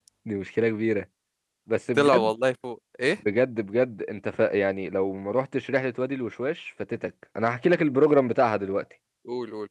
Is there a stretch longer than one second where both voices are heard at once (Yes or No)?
No